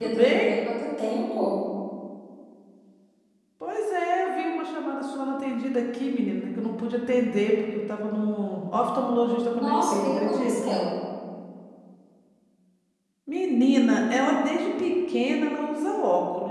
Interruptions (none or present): present